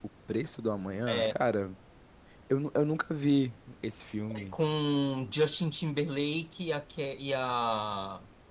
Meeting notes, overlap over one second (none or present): none